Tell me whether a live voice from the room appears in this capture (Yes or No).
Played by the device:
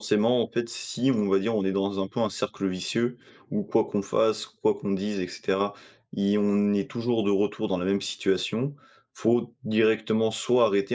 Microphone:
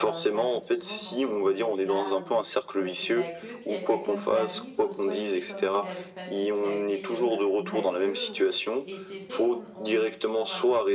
Yes